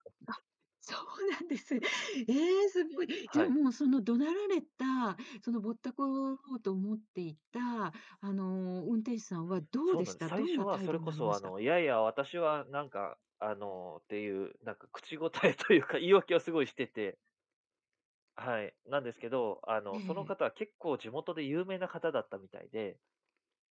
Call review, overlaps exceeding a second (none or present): present